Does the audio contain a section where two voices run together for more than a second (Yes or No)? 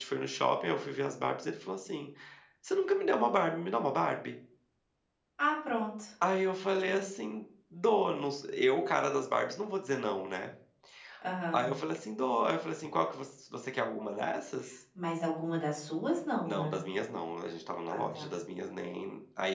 No